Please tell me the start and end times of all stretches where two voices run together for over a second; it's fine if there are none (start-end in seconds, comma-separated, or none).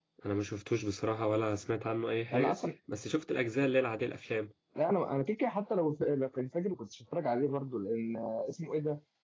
none